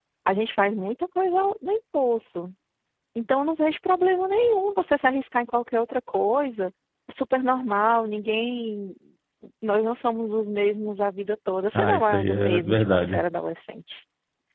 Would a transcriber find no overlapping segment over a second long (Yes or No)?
No